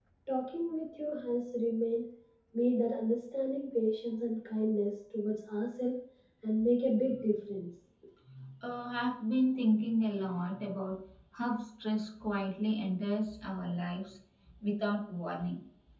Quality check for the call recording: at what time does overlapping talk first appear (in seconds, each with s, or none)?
none